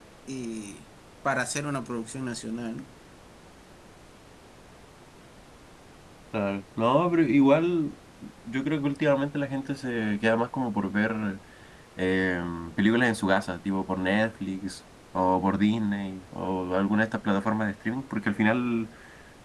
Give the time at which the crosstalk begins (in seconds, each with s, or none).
none